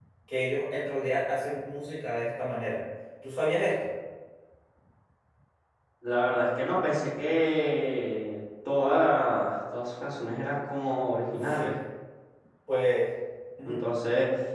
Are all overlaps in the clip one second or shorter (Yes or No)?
Yes